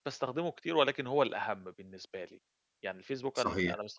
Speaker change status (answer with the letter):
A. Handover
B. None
B